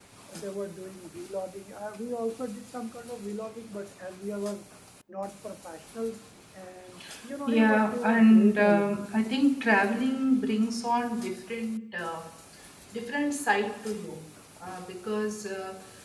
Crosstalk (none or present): present